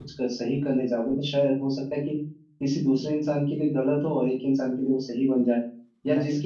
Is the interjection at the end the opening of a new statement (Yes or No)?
No